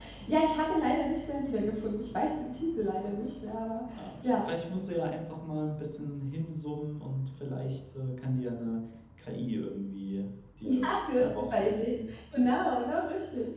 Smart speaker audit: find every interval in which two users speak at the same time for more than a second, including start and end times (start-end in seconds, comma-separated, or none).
10.8-12.1